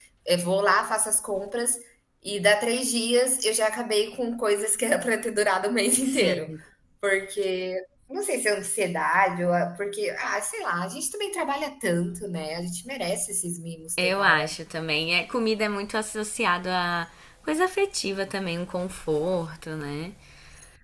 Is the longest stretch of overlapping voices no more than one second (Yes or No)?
Yes